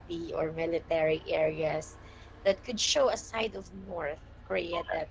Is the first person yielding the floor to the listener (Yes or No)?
No